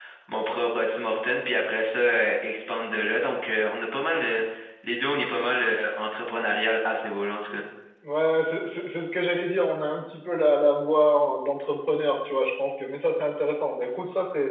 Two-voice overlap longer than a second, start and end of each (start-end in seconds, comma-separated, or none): none